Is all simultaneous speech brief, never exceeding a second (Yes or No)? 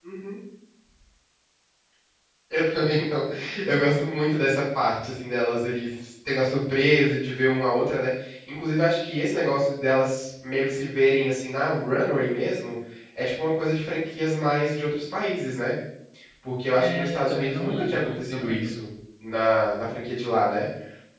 No